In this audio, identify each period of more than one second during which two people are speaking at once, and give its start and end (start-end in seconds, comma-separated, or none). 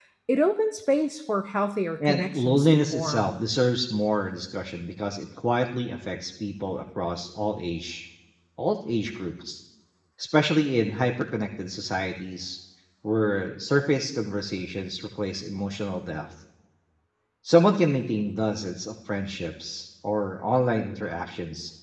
2.0-3.4